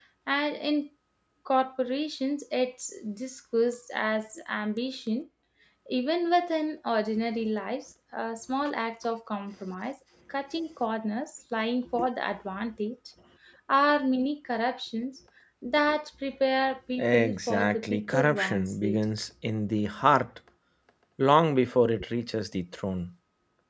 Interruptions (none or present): present